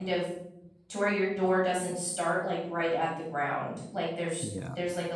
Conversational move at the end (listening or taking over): listening